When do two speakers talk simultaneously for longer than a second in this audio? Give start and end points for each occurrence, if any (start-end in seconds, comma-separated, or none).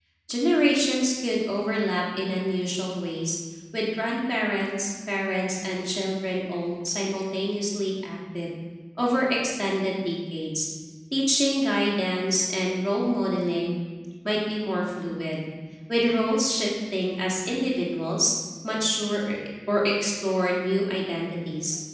none